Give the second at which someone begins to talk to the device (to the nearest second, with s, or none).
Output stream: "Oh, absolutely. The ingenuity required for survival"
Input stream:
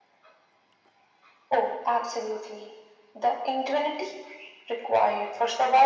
none